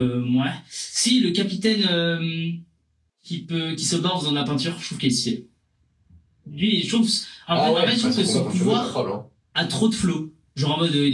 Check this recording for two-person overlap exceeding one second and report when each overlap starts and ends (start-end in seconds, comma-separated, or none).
7.5-8.9